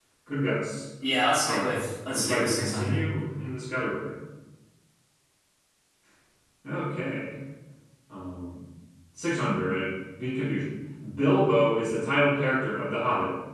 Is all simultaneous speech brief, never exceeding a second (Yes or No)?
No